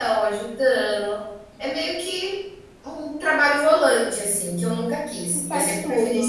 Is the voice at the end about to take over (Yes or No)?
No